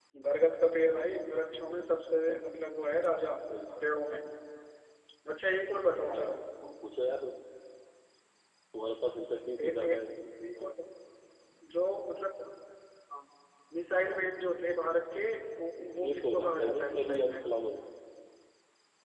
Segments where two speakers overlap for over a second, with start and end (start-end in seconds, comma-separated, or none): 15.9-17.5